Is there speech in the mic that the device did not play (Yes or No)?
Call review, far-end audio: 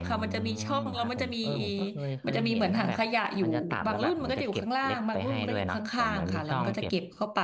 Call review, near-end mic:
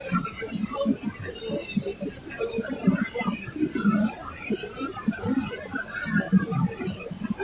No